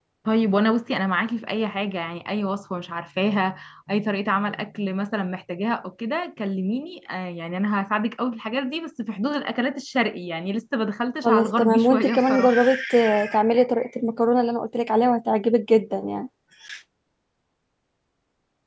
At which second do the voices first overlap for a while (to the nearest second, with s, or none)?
11 s